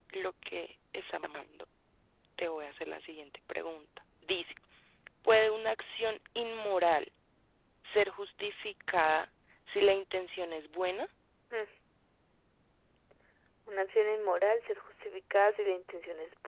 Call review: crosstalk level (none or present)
none